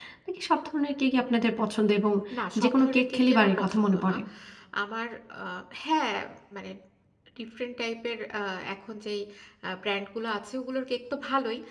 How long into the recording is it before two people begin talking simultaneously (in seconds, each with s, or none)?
2.6 s